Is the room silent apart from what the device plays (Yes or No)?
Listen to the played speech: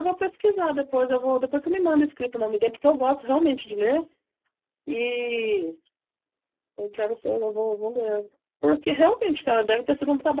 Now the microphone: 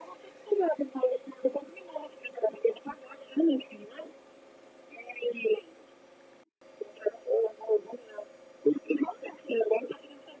Yes